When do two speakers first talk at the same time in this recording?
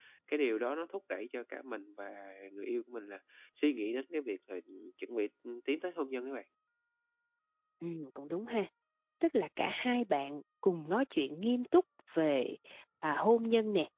none

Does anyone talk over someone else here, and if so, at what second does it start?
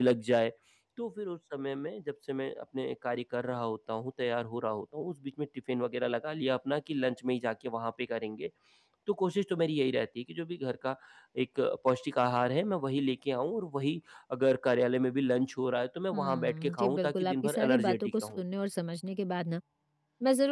16.1 s

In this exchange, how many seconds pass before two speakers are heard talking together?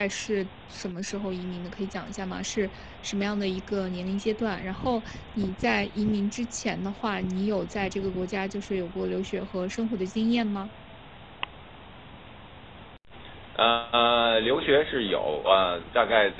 none

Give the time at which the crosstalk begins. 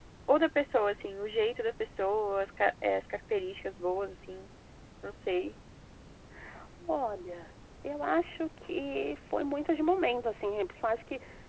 none

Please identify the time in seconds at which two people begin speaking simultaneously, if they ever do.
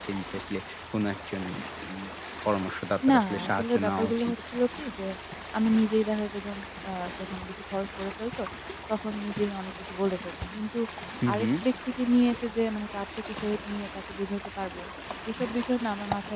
3.1 s

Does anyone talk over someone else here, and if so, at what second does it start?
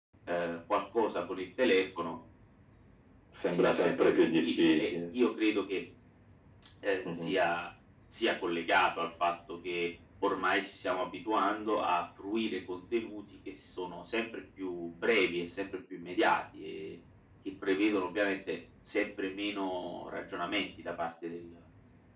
3.5 s

